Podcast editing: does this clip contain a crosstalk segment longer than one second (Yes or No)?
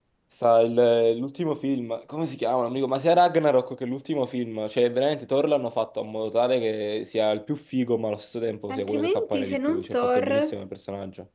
Yes